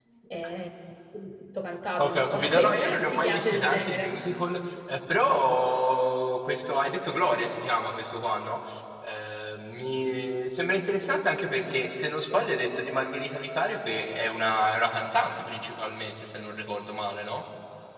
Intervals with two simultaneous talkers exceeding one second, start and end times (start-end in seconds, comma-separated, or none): 2.0-4.2